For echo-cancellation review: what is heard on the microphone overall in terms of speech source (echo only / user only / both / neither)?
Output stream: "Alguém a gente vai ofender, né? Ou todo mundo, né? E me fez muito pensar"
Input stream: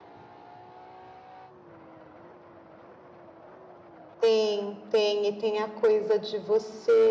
user only